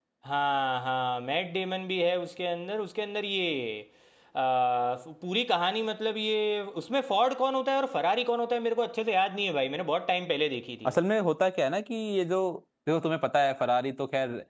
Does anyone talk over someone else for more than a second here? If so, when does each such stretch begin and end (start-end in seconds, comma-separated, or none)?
none